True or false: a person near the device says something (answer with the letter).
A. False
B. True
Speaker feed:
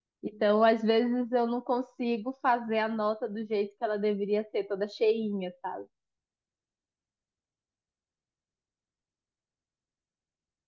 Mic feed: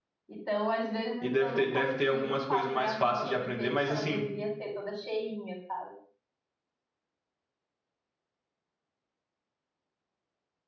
B